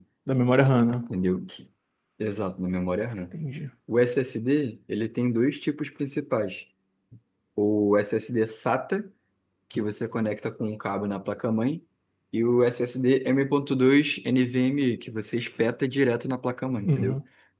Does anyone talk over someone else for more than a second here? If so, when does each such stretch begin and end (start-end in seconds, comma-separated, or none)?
none